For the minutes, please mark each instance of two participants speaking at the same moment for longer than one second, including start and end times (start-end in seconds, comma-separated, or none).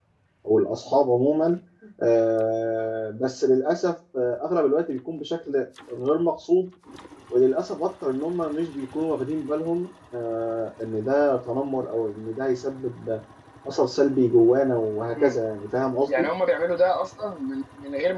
none